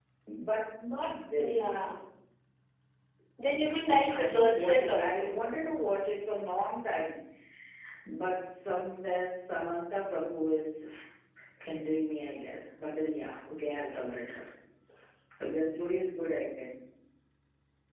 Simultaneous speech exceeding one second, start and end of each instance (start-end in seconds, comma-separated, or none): 3.9-5.3